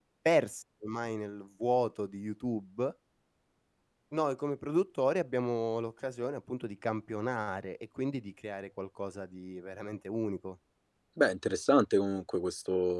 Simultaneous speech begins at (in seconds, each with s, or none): none